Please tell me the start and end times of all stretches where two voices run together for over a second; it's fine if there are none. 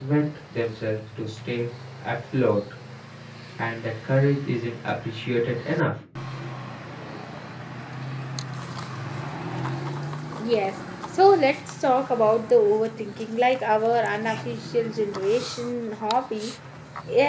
none

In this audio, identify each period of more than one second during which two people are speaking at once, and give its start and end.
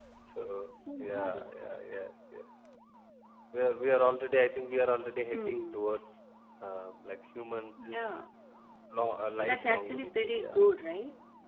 9.4-10.6

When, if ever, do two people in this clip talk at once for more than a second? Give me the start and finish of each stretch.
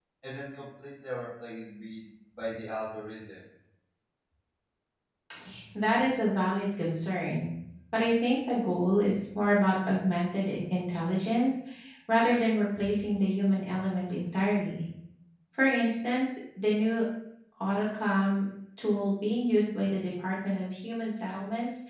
none

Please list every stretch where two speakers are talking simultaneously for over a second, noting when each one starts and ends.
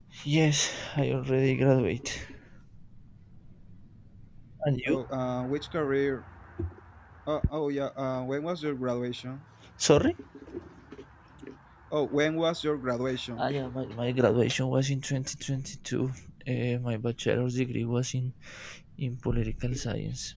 none

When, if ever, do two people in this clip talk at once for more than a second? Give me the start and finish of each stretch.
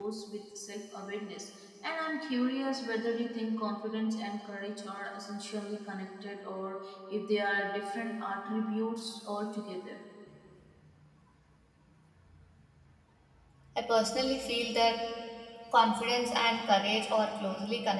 none

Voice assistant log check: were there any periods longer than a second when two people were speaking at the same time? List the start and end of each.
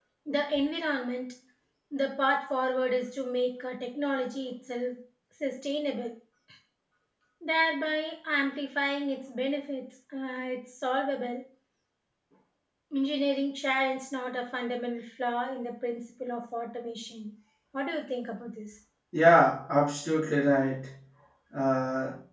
none

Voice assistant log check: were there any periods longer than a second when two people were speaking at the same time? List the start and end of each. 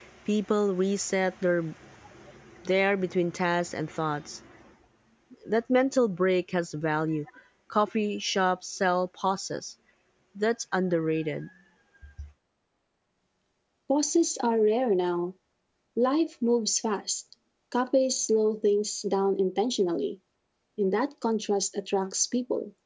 none

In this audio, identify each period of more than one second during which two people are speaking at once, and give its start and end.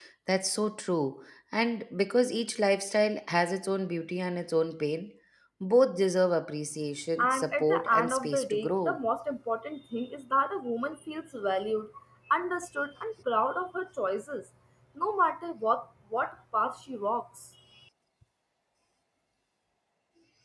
7.2-9.0

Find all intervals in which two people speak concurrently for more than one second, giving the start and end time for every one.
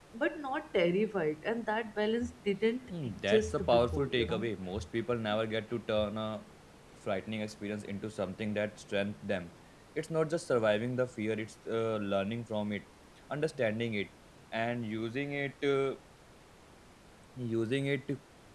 2.9-4.4

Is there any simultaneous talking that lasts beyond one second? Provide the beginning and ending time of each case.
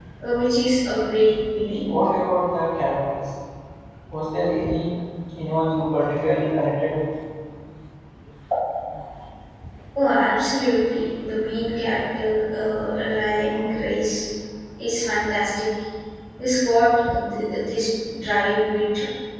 none

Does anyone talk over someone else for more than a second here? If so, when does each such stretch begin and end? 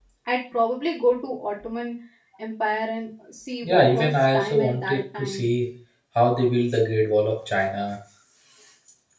3.7-5.5

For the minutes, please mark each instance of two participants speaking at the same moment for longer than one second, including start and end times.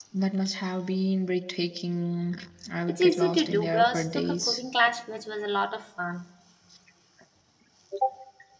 2.9-4.6

